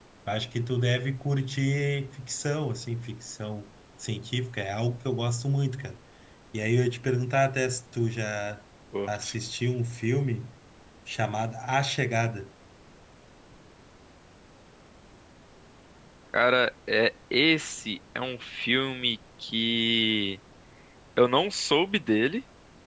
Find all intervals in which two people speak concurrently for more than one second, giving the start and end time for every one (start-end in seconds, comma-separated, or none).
none